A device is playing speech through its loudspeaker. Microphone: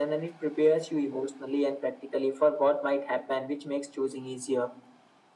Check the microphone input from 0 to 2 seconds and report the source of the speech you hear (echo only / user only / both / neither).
echo only